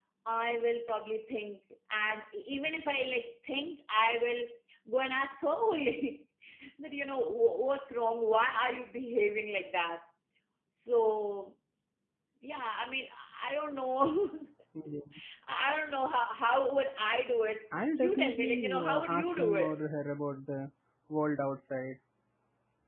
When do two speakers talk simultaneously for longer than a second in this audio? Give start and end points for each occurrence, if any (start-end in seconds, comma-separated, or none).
17.9-19.8